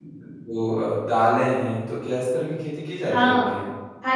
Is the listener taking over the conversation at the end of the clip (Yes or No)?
Yes